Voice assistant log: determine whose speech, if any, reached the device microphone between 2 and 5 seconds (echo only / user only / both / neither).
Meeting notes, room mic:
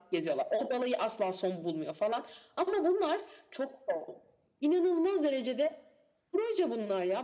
echo only